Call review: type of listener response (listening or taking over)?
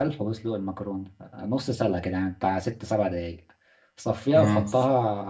listening